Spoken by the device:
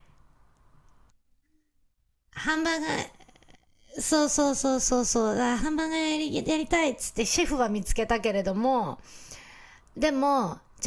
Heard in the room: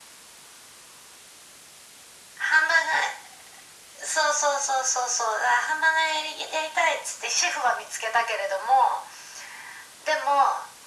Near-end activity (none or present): none